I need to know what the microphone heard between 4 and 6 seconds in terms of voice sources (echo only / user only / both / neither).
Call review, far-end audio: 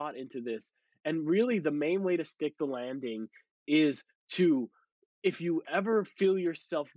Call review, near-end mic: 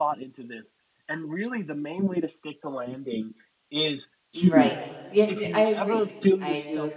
both